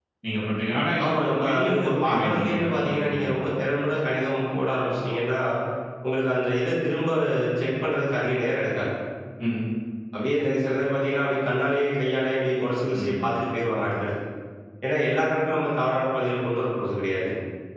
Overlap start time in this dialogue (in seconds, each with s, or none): 1.0 s